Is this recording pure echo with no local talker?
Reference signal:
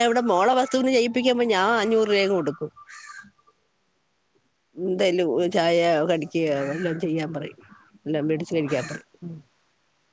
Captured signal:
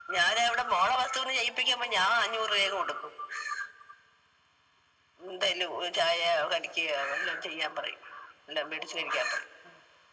Yes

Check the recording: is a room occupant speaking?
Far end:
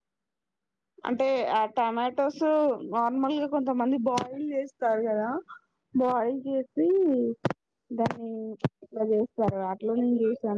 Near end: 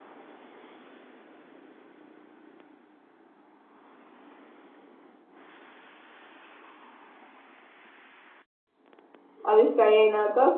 Yes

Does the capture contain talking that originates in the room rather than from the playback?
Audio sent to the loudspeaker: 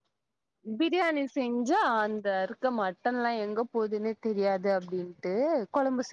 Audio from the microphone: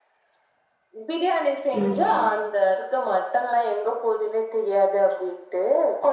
Yes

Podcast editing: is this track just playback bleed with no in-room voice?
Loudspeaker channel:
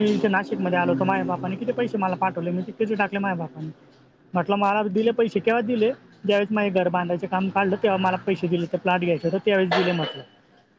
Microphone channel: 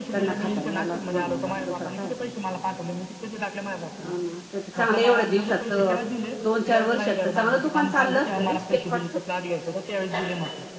No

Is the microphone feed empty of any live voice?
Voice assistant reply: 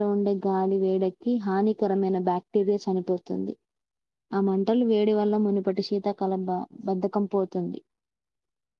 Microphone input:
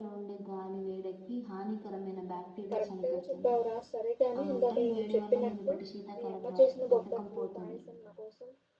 No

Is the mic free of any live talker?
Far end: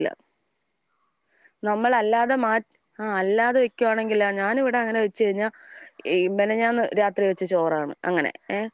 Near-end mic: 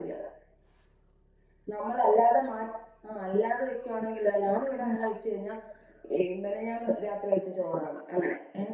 Yes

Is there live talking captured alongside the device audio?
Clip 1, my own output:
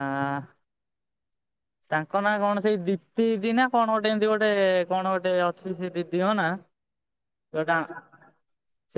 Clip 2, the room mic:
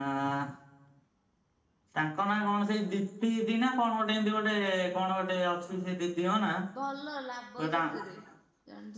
Yes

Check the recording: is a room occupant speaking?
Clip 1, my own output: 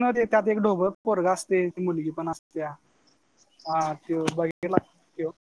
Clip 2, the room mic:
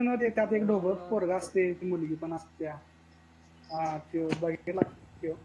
Yes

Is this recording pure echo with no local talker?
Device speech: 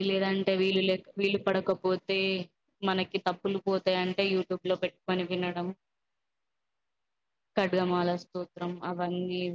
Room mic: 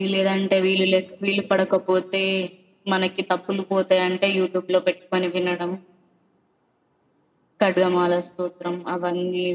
Yes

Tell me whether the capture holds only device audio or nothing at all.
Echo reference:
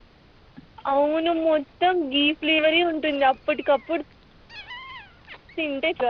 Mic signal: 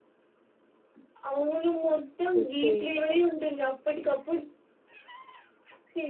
No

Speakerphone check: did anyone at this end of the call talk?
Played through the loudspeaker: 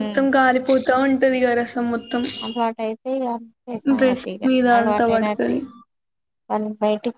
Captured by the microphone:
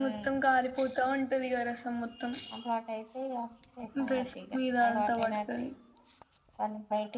No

